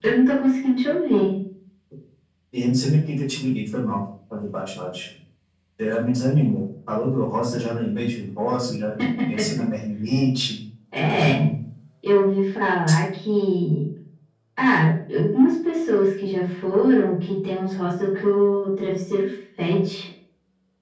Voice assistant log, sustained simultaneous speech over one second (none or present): none